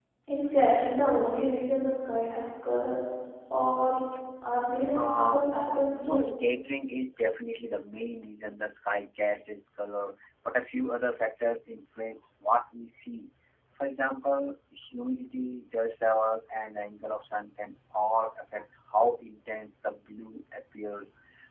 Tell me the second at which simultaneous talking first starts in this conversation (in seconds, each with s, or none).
4.9 s